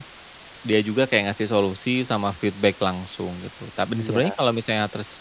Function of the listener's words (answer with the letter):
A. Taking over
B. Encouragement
B